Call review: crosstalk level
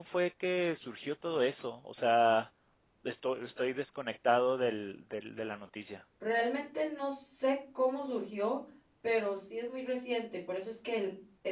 none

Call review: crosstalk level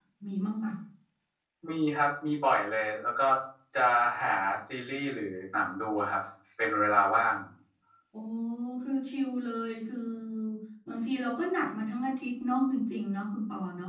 none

